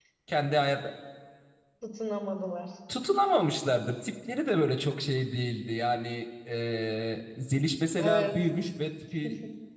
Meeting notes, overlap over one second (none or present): none